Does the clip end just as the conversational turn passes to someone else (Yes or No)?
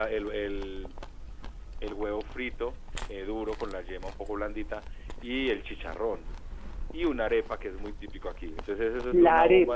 Yes